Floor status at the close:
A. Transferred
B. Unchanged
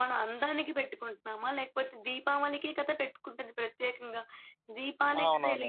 B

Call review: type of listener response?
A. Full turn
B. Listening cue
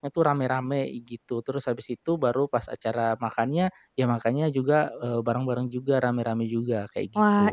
A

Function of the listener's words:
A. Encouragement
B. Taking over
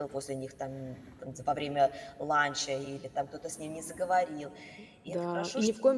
B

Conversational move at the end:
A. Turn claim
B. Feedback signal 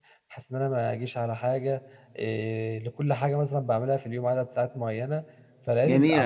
A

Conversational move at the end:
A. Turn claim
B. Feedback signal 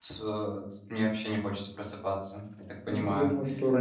A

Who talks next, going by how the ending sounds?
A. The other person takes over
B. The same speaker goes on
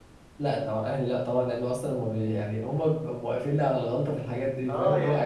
A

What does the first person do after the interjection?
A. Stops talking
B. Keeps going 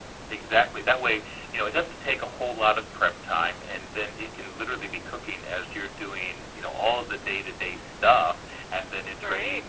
B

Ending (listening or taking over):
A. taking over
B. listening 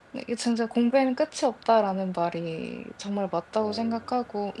B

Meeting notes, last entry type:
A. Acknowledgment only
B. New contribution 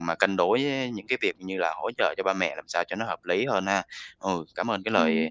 A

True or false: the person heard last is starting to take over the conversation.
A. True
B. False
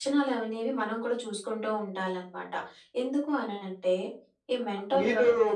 A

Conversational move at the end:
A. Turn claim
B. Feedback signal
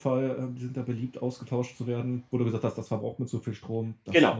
A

